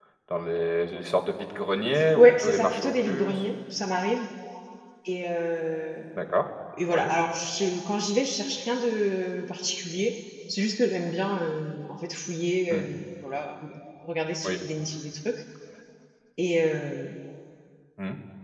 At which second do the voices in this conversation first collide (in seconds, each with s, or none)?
2.2 s